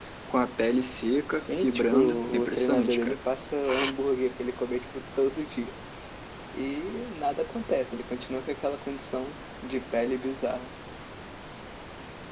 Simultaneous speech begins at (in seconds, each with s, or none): 1.3 s